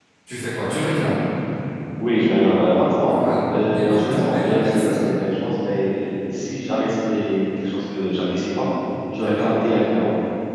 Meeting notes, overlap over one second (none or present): present